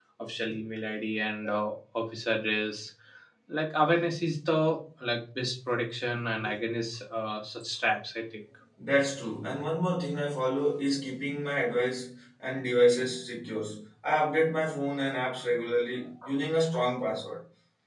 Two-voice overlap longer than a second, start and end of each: none

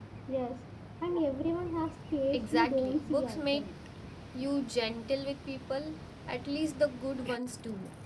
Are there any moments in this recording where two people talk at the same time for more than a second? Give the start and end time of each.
2.3-3.7

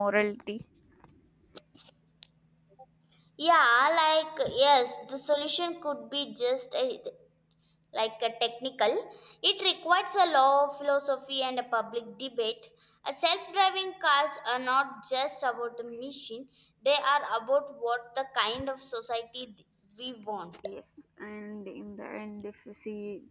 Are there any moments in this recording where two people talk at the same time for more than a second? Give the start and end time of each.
none

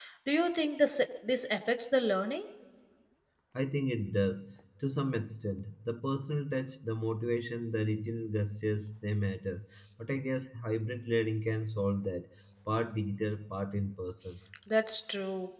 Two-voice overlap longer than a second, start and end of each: none

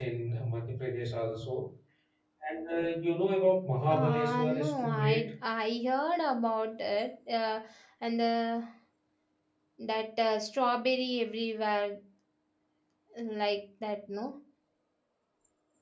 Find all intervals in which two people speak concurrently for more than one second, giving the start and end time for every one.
3.9-5.3

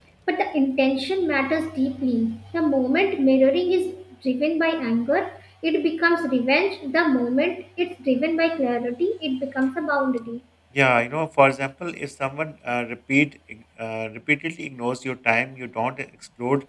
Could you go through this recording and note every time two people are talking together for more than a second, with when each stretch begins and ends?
none

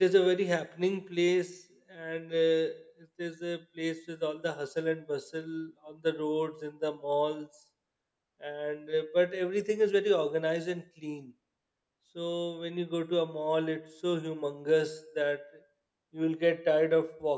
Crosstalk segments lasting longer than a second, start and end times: none

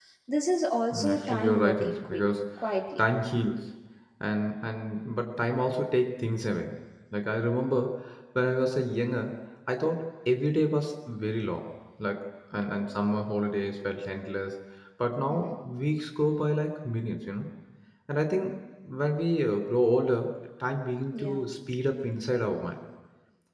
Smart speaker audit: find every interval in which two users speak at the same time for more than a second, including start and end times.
0.9-2.2

